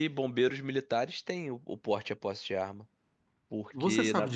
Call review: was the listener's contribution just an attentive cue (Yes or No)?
No